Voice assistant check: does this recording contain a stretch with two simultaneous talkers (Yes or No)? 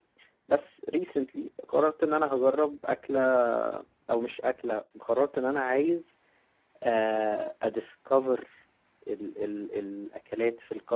No